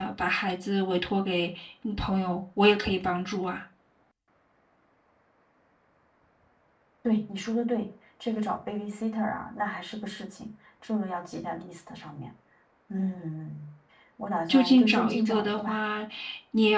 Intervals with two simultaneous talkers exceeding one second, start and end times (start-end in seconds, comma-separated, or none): 14.5-15.8